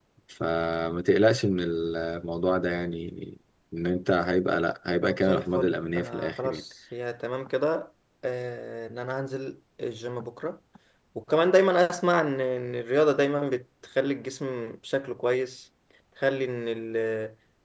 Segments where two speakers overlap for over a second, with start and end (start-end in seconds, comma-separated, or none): 5.0-6.6